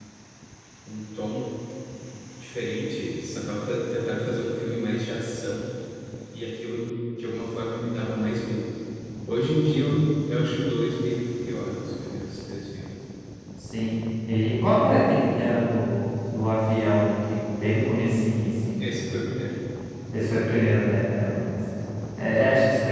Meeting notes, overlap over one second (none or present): none